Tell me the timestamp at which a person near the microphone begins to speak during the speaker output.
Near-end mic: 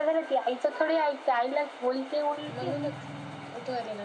2.5 s

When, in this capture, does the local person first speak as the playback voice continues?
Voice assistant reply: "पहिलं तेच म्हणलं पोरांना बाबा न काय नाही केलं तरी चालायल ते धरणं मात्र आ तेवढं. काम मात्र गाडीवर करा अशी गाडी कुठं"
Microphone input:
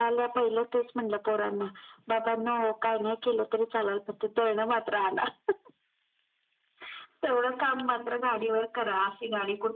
none

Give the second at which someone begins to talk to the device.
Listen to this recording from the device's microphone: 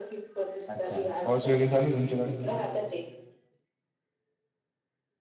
0.7 s

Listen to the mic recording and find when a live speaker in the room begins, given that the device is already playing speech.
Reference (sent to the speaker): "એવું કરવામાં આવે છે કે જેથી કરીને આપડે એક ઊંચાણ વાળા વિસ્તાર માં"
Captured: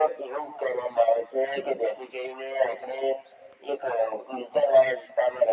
none

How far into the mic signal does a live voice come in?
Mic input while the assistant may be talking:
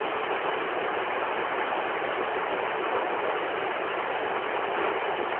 none

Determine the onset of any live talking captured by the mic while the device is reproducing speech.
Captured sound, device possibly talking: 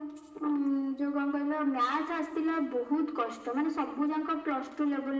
none

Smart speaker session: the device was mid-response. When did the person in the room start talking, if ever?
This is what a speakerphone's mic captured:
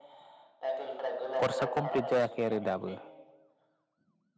1.4 s

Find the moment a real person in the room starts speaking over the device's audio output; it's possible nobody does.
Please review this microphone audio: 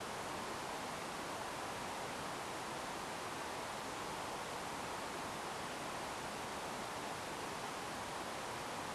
none

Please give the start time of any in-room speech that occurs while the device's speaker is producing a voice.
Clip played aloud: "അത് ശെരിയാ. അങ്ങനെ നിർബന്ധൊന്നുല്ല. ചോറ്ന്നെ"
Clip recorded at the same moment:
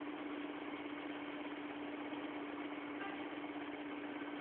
none

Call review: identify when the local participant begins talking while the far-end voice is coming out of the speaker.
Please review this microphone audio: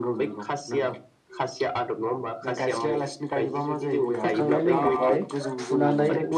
4.2 s

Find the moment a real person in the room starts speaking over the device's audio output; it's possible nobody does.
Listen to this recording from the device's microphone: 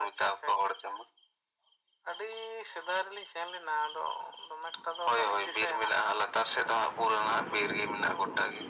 none

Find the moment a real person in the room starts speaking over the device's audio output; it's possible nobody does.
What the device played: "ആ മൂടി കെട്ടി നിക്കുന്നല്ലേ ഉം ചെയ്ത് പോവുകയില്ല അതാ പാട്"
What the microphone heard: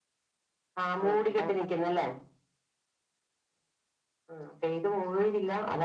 1.0 s

